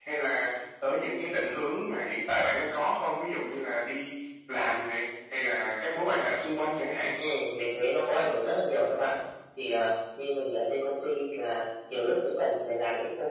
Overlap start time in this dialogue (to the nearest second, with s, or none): none